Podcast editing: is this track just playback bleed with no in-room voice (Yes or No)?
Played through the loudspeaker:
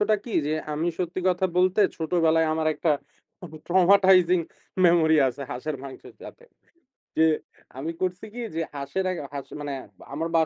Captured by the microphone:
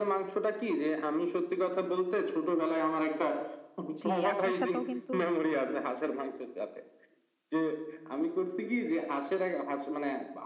No